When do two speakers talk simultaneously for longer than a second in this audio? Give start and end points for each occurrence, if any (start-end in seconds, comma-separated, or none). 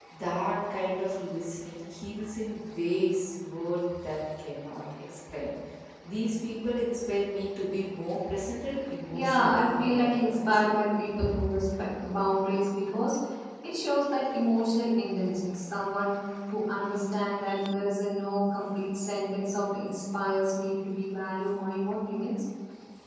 9.1-10.6